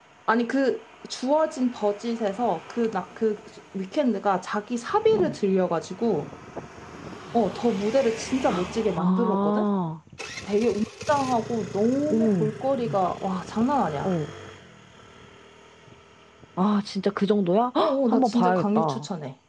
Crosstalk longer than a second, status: present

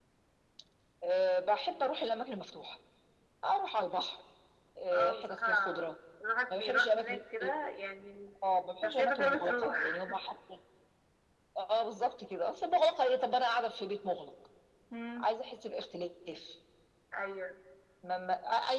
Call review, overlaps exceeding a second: present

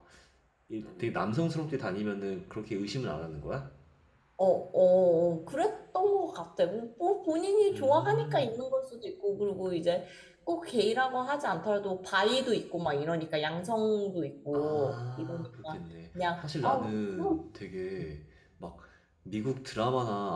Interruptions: present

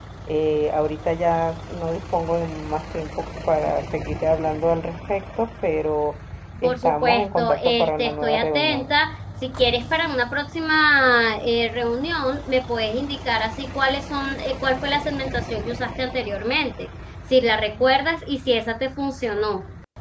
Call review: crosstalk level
present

